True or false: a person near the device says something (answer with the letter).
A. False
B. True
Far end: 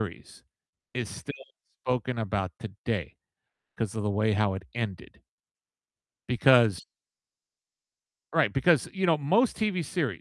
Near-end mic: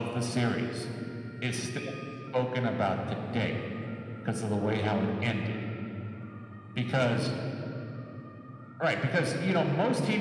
A